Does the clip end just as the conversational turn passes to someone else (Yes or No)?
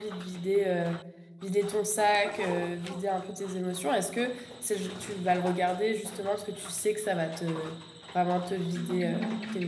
Yes